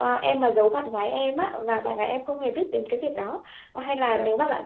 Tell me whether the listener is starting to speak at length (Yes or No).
No